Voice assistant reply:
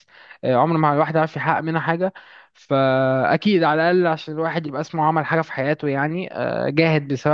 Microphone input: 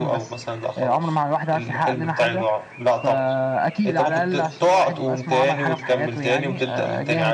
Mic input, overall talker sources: both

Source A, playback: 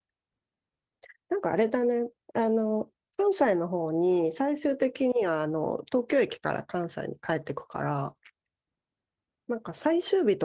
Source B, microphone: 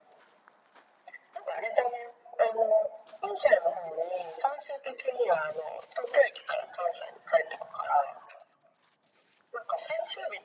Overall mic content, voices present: echo only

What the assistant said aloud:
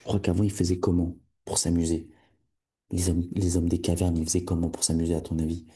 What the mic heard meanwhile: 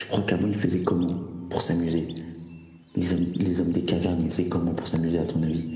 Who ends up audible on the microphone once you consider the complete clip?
echo only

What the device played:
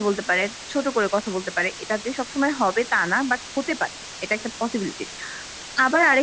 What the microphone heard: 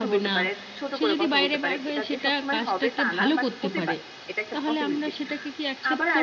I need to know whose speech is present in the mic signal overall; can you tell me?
both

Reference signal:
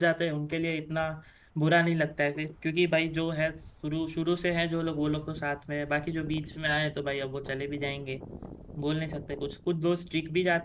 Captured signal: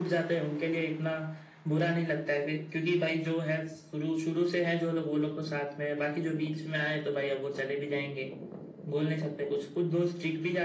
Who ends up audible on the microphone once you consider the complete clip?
echo only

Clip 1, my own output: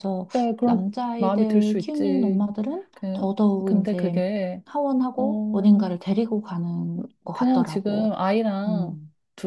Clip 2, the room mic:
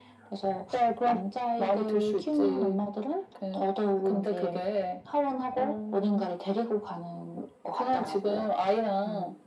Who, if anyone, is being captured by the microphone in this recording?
echo only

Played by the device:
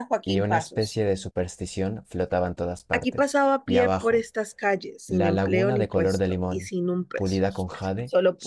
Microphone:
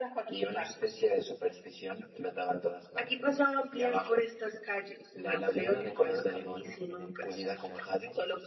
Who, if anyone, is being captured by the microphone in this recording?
both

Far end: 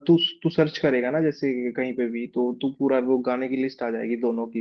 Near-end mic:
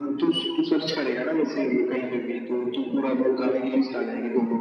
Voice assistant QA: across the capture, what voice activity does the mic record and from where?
echo only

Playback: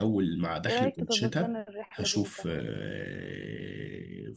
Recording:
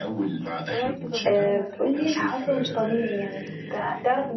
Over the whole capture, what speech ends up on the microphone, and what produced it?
both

